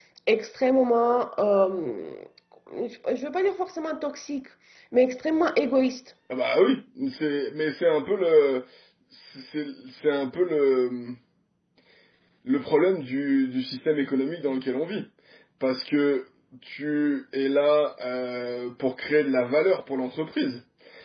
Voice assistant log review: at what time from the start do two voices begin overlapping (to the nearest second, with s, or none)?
none